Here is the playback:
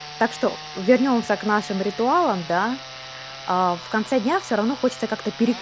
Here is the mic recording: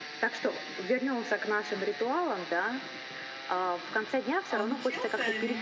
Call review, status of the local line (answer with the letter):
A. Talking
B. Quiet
A